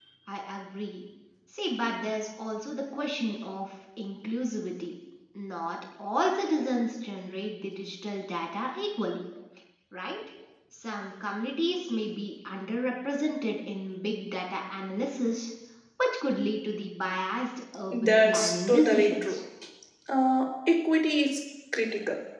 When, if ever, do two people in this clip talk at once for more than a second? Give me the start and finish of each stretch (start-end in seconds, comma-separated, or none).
17.9-19.4